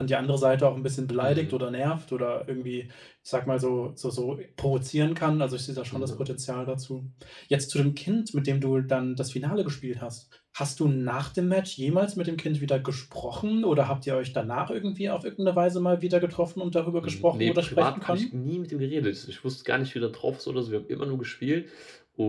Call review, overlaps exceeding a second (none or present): present